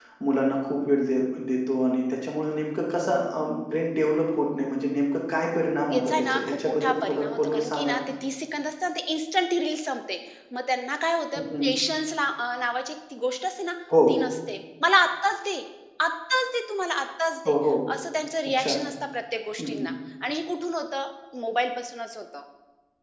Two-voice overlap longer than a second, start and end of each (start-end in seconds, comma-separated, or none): 5.9-8.0